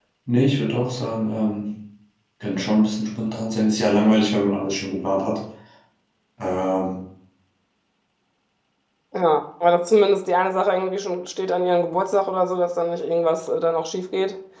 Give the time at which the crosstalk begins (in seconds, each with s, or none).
none